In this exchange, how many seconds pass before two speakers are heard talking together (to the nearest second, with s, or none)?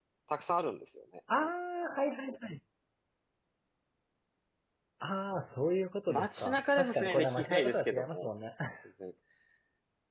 6 s